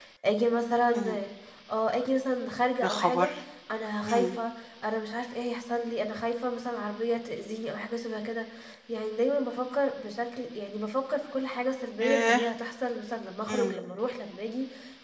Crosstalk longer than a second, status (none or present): none